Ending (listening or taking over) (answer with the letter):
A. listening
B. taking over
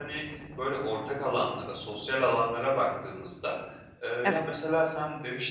A